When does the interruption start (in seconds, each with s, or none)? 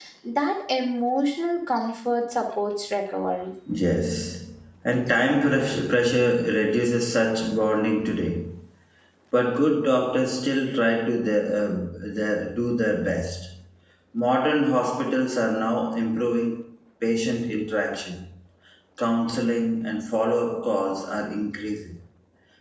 none